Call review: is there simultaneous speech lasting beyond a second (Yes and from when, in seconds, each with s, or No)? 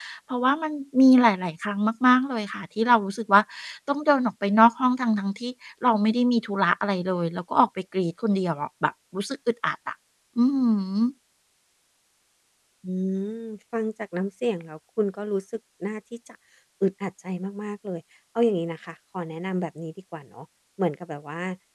No